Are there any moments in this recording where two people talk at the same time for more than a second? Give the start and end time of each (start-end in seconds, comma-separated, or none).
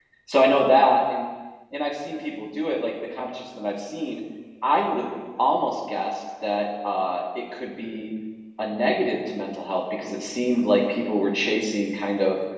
none